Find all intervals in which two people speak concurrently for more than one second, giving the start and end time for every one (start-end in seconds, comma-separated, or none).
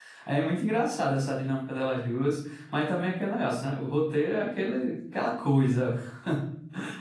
none